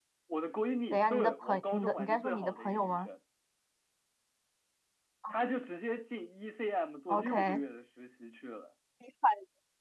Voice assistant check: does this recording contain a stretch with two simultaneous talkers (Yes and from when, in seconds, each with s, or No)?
Yes, from 0.9 s